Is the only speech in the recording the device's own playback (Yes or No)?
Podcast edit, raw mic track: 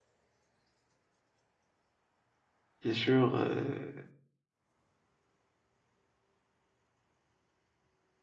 No